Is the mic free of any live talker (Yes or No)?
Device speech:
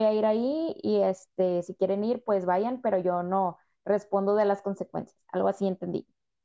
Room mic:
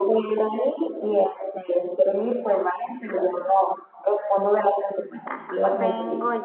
No